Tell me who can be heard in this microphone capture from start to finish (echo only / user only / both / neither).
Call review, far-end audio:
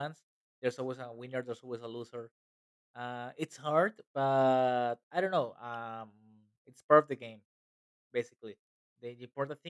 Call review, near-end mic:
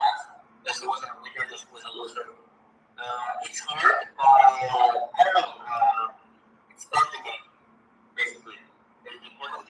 echo only